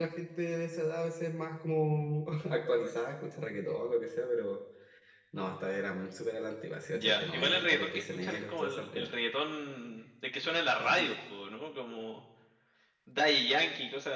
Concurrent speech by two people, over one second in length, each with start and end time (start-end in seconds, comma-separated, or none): 6.9-9.1